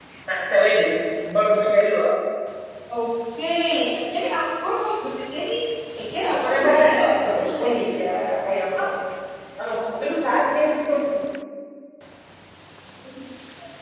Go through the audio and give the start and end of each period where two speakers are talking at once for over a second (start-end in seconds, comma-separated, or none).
6.3-7.9